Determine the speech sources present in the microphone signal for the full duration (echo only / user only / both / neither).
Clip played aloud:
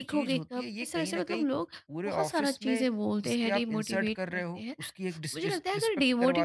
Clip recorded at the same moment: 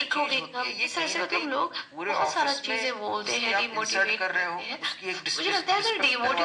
echo only